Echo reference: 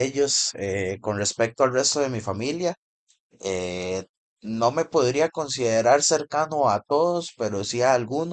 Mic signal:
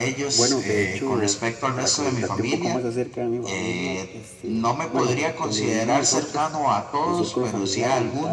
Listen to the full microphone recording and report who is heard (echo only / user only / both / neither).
both